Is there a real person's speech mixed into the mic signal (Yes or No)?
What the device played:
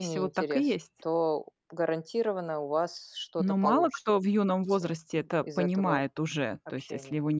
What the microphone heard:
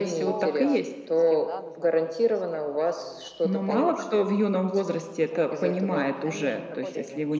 Yes